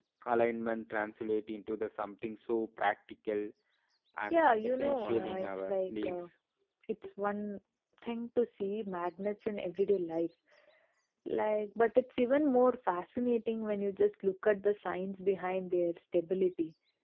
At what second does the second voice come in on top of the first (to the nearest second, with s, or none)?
4 s